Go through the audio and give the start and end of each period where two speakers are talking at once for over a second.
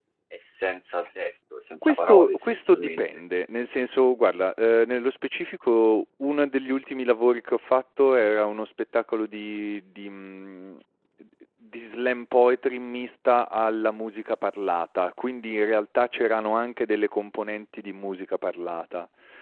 1.8-3.0

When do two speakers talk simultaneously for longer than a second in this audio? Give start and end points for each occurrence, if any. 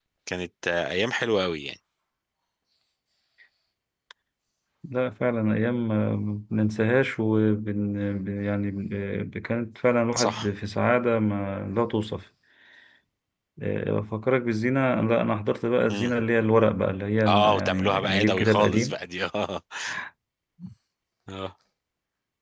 17.3-18.9

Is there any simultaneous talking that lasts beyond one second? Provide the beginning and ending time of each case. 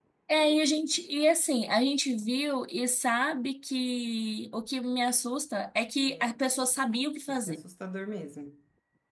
none

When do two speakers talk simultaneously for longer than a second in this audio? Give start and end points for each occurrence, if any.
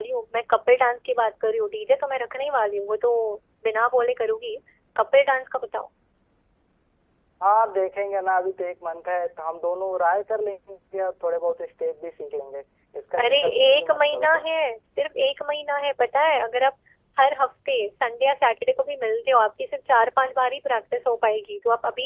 13.2-14.5

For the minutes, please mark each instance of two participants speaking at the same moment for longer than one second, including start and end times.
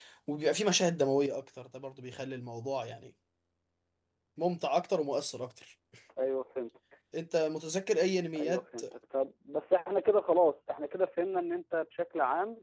none

